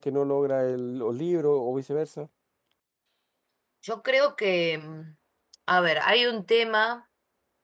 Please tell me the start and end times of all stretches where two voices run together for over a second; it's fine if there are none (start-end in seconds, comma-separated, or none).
none